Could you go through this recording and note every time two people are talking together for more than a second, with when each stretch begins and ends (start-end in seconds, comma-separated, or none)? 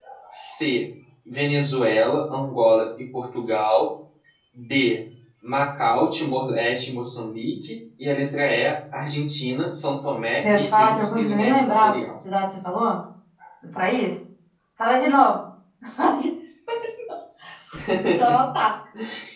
10.4-11.9